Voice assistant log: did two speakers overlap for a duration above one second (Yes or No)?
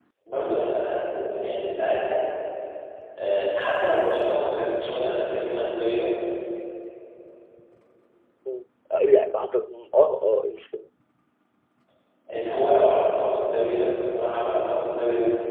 No